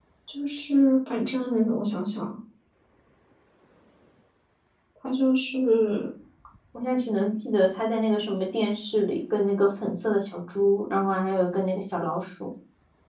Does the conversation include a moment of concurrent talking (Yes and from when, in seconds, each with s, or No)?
No